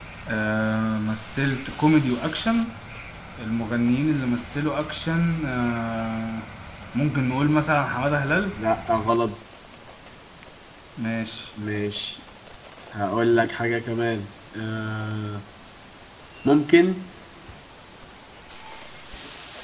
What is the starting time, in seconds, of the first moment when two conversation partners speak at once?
none

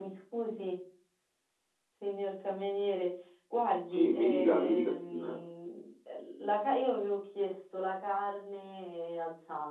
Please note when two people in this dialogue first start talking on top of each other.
3.9 s

